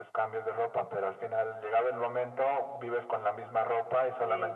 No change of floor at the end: Yes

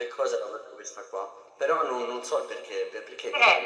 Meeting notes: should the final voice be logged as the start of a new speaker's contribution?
Yes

